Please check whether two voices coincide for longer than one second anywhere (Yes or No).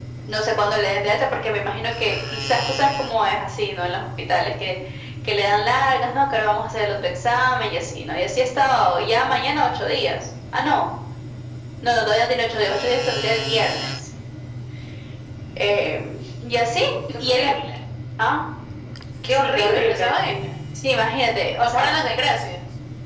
Yes